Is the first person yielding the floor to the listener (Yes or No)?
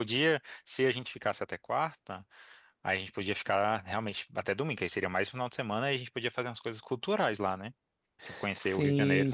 Yes